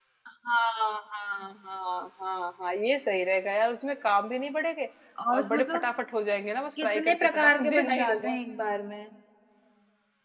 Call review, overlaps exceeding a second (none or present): present